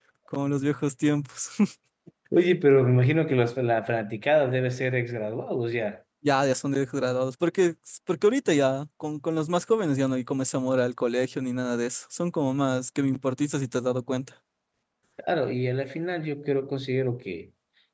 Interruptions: none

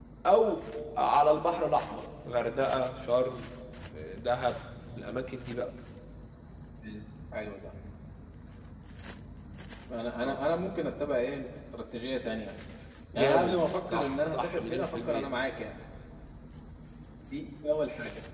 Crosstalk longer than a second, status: present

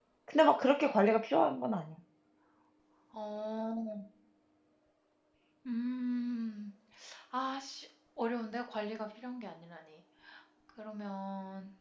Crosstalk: none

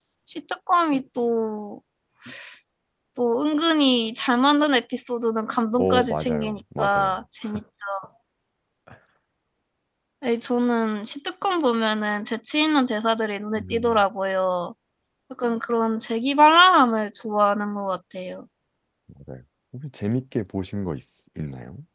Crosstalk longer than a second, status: present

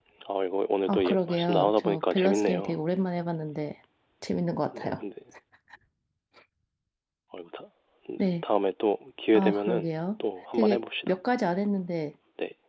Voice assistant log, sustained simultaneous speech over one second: present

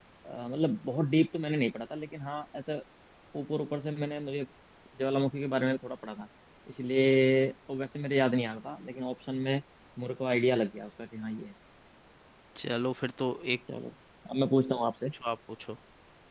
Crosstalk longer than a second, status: none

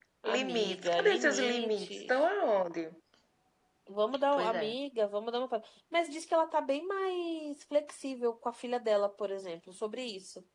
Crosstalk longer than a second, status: present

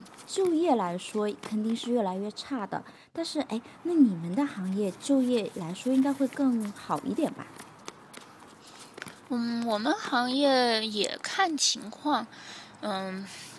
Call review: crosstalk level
none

